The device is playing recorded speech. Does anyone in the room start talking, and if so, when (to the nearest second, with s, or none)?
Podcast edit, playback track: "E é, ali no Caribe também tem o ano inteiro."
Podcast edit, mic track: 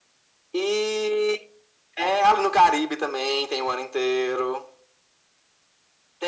none